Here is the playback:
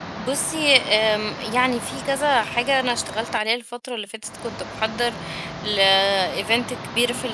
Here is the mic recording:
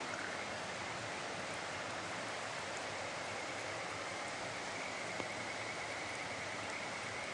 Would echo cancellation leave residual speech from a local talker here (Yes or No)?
No